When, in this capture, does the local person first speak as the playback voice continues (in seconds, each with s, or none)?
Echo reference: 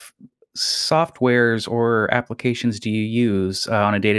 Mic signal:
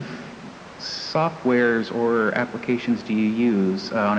none